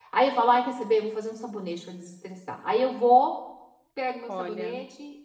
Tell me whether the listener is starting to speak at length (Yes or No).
No